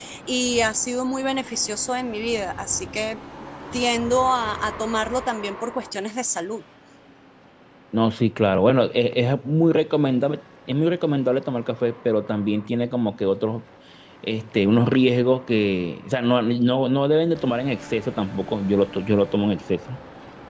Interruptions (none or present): none